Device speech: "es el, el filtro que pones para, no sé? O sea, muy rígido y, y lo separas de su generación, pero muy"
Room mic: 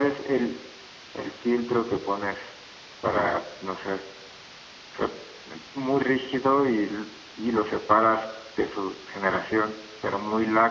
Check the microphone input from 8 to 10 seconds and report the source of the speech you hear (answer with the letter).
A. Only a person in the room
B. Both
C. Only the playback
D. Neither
C